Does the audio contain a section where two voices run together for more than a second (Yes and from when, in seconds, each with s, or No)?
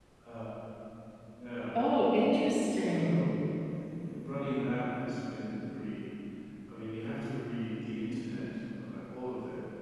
No